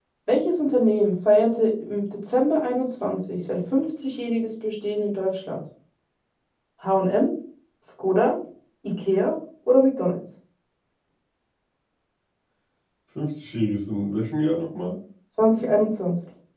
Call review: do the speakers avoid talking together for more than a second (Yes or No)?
Yes